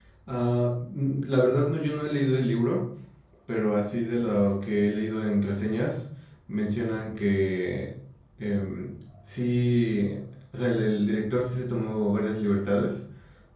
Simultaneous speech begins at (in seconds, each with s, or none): none